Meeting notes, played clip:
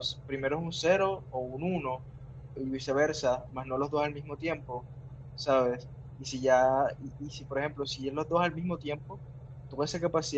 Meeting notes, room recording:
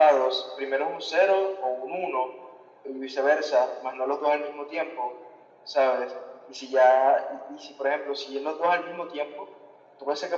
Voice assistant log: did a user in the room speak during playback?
No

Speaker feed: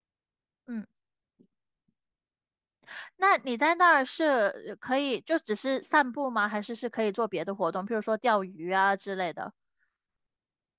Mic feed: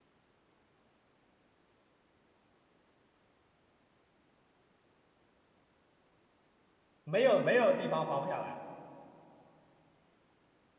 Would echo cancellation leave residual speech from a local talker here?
Yes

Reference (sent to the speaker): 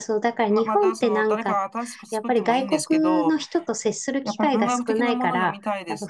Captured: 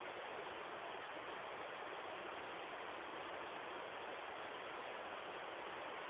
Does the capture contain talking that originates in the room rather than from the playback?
No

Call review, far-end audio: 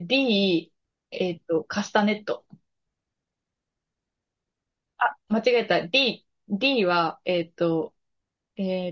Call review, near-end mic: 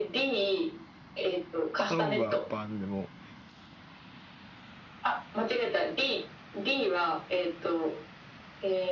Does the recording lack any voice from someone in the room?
No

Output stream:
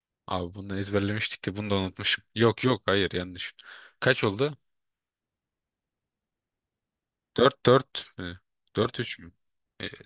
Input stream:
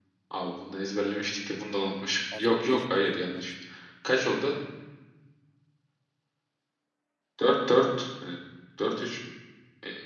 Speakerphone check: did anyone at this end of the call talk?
Yes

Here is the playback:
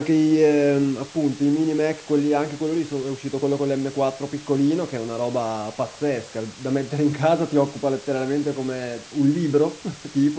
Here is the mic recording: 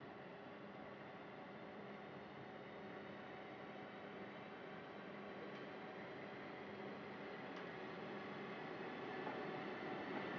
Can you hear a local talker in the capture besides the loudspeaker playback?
No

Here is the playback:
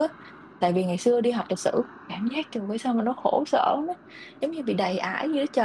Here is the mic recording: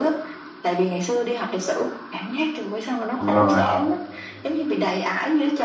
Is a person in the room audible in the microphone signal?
Yes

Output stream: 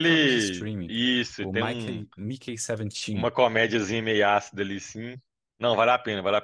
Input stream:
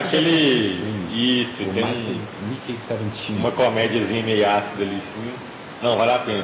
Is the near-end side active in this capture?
No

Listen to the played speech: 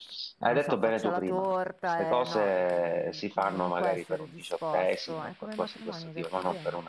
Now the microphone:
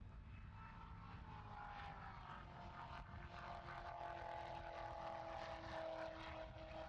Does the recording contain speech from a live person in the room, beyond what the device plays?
No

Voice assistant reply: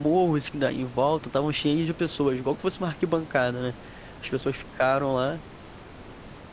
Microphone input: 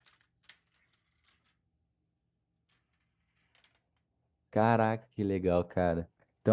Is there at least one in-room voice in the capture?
Yes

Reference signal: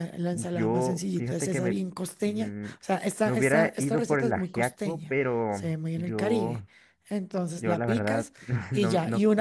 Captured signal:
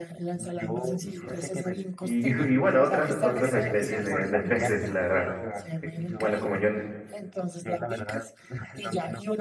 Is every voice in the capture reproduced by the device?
No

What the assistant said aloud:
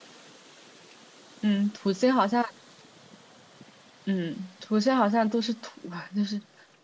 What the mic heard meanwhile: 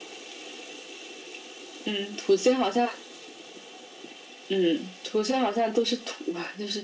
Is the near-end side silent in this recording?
Yes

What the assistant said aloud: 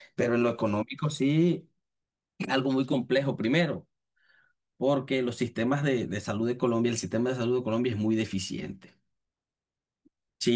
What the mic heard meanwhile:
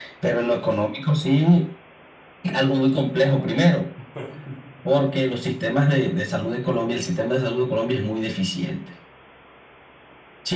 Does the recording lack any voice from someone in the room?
No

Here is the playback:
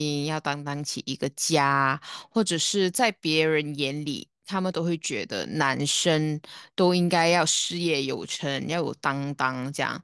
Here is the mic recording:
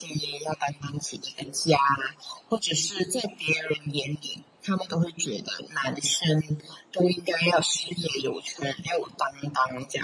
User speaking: No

